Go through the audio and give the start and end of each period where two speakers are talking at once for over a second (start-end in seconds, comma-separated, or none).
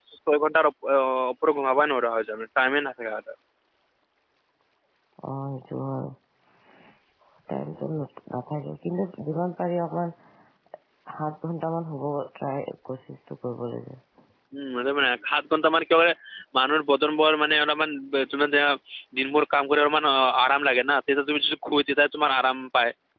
none